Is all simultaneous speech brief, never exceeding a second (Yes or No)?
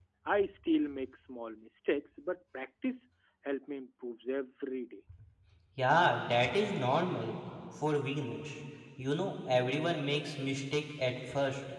Yes